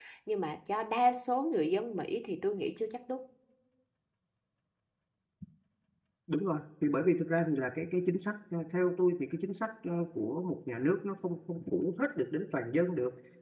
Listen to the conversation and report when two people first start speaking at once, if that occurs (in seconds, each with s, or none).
none